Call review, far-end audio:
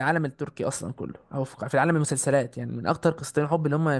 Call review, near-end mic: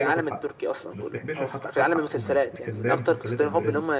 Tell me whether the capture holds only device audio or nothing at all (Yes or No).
No